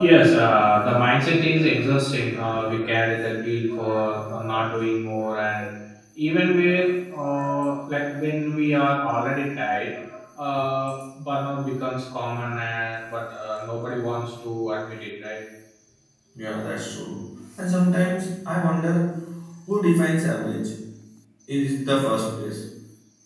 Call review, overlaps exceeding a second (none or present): none